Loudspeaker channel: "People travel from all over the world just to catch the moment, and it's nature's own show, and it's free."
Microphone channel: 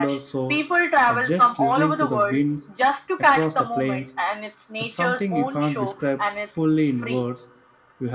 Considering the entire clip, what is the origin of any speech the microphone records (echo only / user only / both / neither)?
both